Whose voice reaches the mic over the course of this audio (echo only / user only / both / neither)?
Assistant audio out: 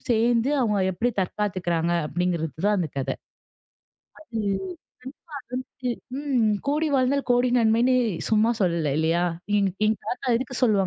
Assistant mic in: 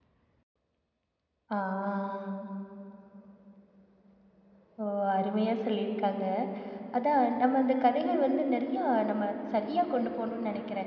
user only